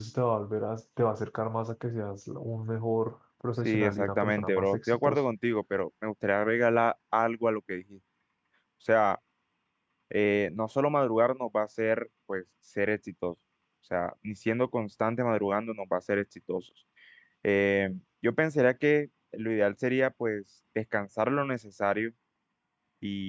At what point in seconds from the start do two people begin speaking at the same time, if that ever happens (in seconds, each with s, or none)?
3.6 s